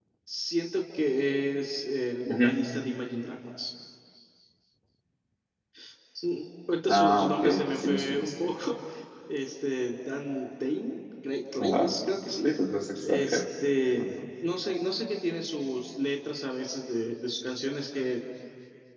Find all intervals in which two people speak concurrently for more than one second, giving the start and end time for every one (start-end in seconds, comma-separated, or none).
6.9-8.3